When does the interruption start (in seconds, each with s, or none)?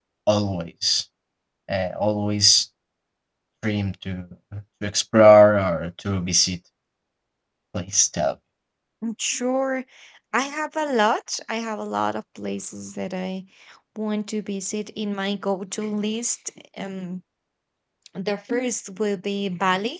none